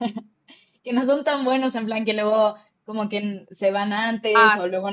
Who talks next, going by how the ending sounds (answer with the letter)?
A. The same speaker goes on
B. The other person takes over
B